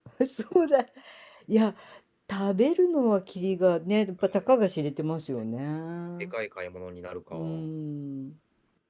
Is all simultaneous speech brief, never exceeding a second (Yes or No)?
Yes